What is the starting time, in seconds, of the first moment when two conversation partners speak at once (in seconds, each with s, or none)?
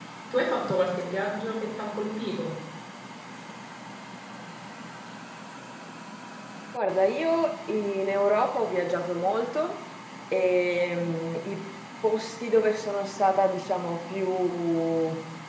none